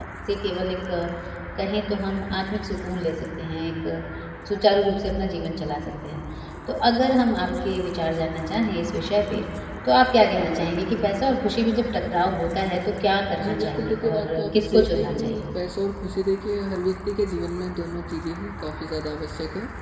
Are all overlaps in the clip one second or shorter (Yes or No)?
No